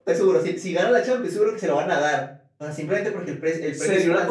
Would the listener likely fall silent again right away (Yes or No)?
No